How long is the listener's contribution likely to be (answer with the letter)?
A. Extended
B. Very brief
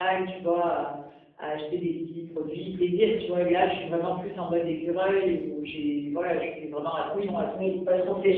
A